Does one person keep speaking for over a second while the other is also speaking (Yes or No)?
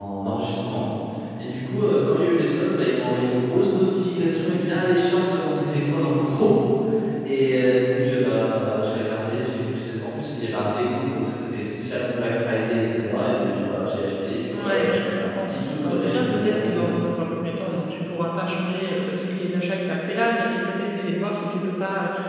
Yes